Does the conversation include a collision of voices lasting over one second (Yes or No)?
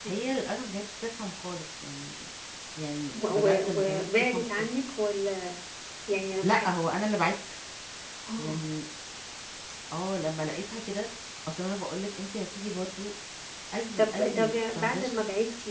Yes